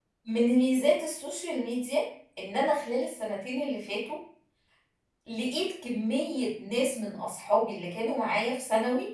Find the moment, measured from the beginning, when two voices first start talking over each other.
none

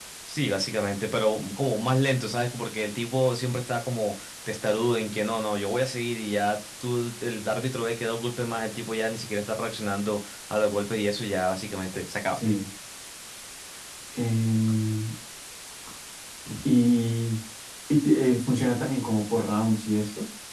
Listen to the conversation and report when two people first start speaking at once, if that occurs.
none

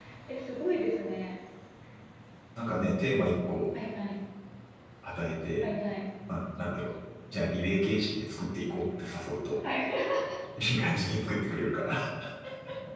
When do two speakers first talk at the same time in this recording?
none

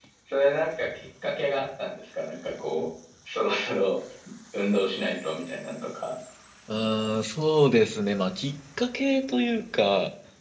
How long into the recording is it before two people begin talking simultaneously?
none

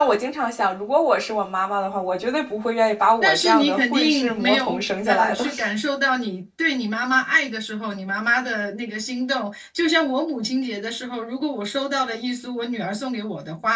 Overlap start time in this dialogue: 3.2 s

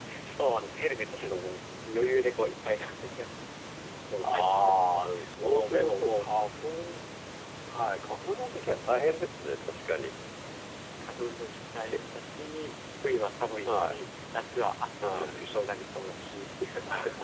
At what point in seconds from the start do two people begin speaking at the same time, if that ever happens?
4.2 s

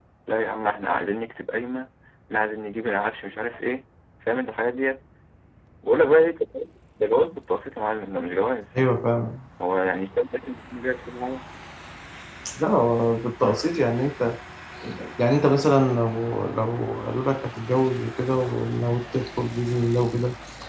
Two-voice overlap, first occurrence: none

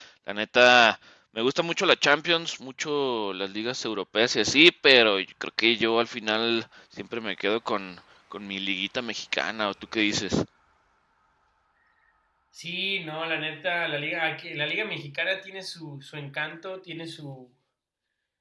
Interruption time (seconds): none

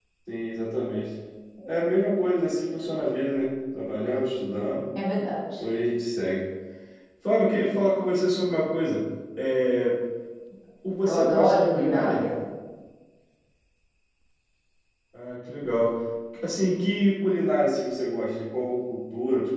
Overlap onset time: 11.0 s

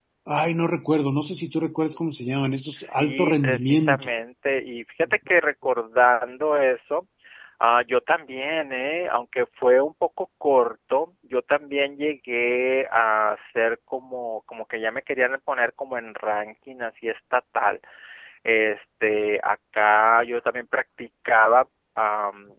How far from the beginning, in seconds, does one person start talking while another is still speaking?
2.7 s

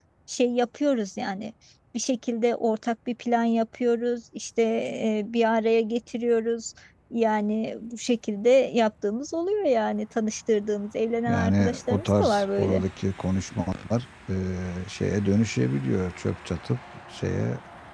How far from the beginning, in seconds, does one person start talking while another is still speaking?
11.3 s

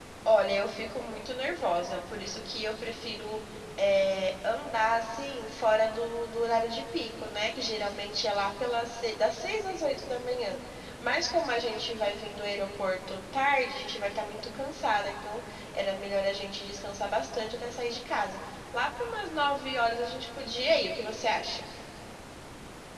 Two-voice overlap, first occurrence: none

